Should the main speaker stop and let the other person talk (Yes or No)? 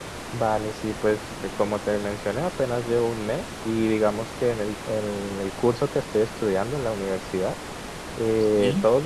No